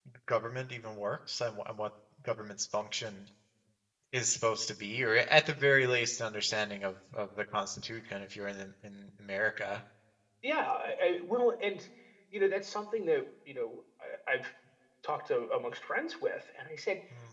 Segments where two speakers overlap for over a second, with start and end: none

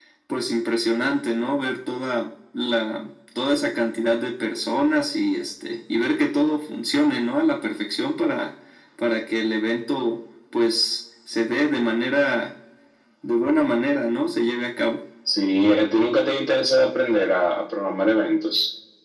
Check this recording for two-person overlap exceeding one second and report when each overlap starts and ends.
none

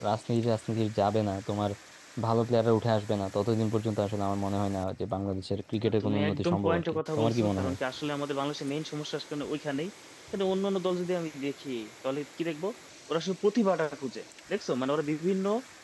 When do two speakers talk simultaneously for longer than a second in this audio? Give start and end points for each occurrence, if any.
6.0-7.8

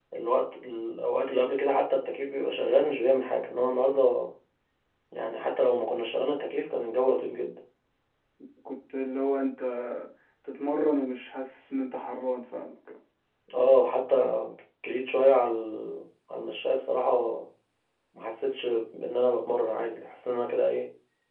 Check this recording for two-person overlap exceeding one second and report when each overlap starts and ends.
none

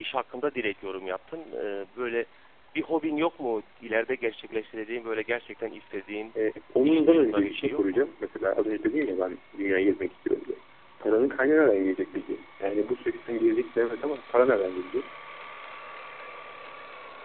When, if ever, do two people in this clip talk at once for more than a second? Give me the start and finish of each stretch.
6.8-8.1

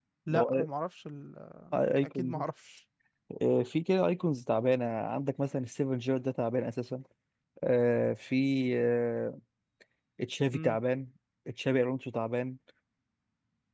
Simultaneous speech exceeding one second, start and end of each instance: none

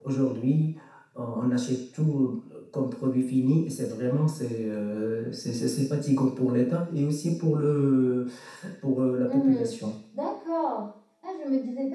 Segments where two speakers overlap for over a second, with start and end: none

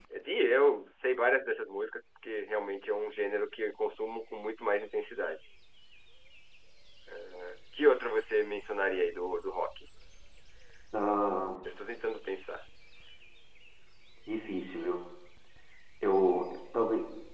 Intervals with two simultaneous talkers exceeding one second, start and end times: none

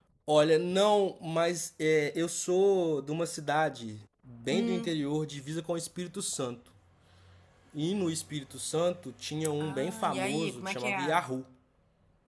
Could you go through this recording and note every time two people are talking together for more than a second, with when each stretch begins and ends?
9.6-11.2

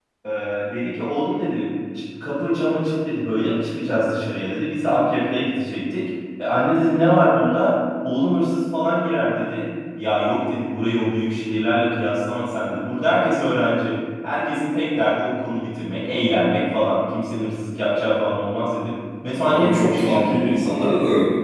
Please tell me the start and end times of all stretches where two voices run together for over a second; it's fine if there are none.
19.5-20.7

